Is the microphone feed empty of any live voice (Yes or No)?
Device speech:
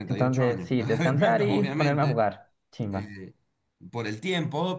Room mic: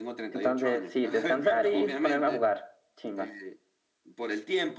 Yes